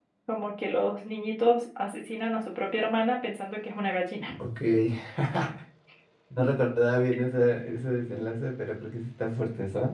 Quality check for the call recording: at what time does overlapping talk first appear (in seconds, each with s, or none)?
none